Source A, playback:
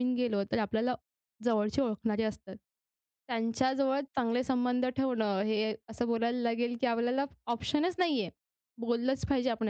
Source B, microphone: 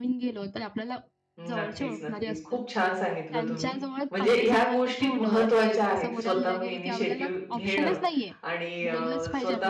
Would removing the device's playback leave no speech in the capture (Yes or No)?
No